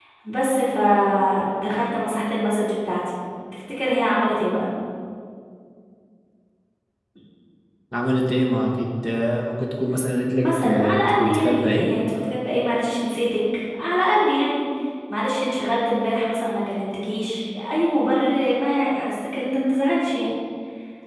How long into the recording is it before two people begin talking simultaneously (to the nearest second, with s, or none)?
10 s